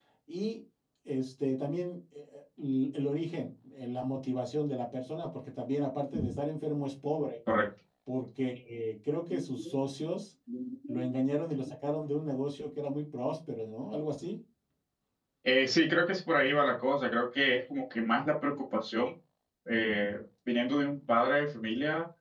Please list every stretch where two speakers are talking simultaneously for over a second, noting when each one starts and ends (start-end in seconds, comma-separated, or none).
none